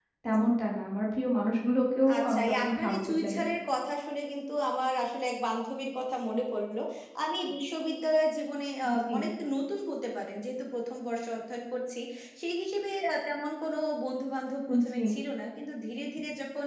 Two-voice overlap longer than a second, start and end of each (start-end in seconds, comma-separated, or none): 2.1-3.4